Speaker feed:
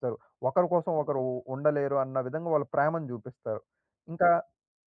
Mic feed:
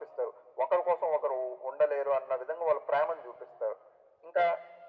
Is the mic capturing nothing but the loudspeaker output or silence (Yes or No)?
Yes